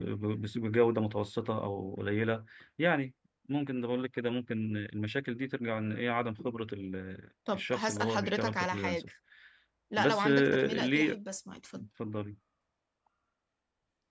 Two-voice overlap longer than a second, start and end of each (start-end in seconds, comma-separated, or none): 7.5-9.1, 10.0-11.2